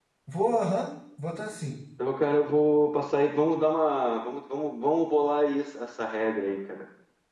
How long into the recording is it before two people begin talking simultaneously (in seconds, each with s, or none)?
none